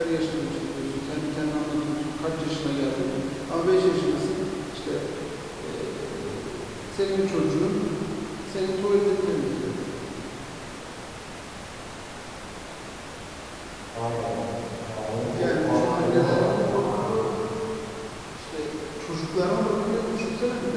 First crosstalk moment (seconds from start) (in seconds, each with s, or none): 15.4 s